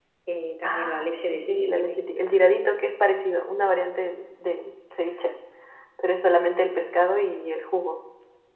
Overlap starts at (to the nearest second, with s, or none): 1 s